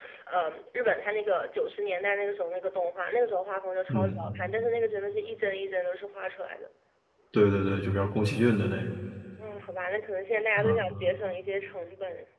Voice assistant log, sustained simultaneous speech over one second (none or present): none